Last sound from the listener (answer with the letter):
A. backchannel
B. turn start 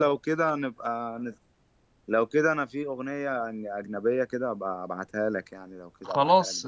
B